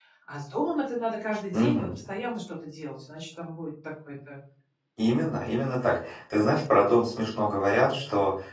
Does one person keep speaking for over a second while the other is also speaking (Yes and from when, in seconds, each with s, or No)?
No